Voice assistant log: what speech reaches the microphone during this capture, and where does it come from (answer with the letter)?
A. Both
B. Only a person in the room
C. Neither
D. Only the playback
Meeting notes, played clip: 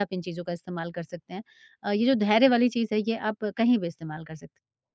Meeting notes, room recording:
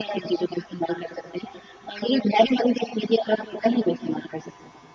D